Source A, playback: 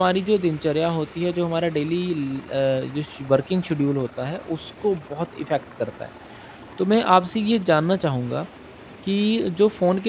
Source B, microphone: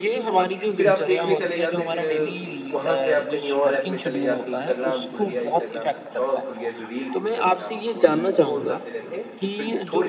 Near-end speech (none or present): present